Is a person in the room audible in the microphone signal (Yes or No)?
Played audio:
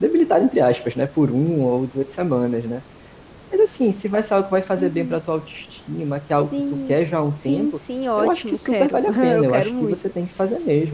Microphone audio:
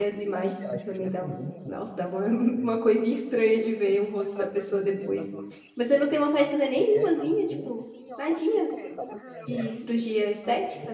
Yes